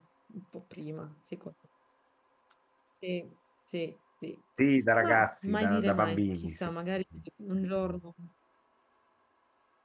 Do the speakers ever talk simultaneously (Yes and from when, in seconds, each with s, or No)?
Yes, from 5.0 s